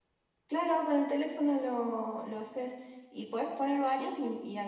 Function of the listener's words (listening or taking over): listening